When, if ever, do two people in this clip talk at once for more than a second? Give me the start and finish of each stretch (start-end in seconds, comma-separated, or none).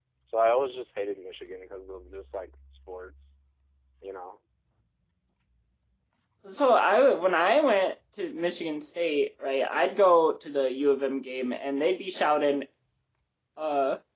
none